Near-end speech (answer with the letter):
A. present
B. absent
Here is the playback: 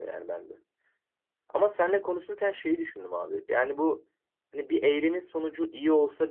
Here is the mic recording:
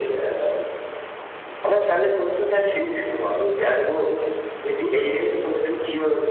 B